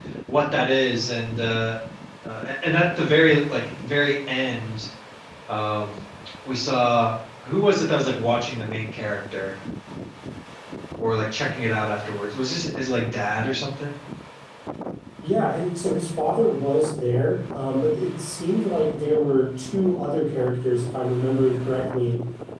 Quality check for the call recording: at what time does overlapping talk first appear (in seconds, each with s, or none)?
none